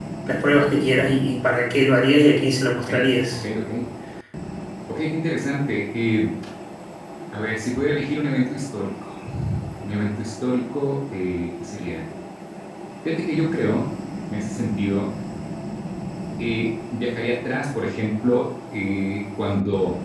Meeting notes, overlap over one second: none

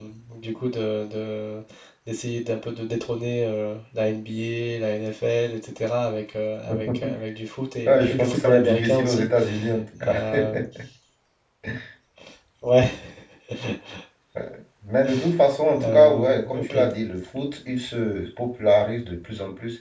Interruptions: present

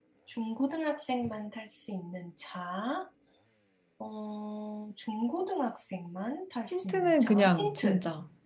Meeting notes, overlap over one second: present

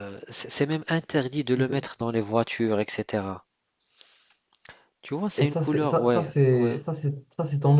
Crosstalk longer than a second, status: present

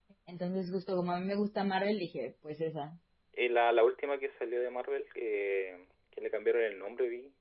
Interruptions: none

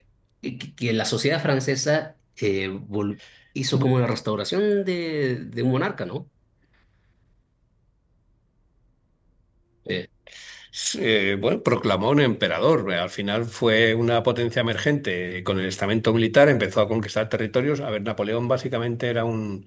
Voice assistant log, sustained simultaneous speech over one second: none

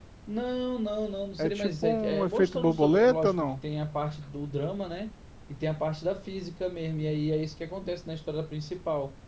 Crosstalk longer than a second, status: present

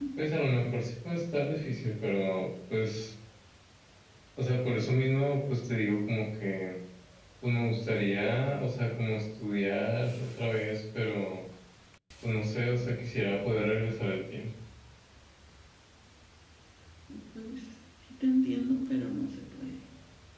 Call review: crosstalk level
none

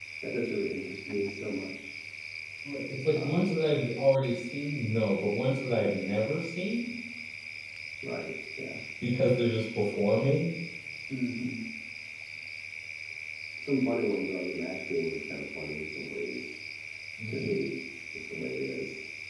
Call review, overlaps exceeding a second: none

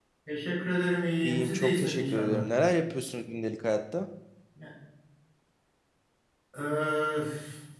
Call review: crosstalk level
present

